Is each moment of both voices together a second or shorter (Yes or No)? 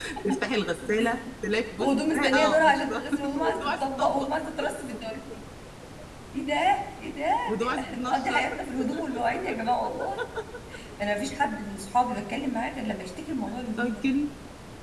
No